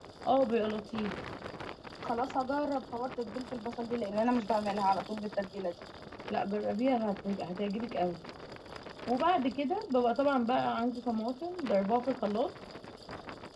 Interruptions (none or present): none